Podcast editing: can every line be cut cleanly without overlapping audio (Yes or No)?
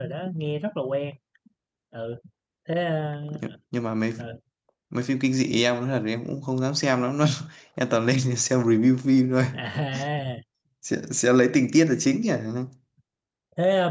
Yes